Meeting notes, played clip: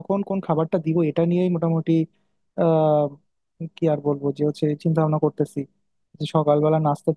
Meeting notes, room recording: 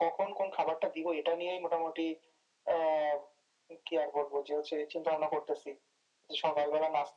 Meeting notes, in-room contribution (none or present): none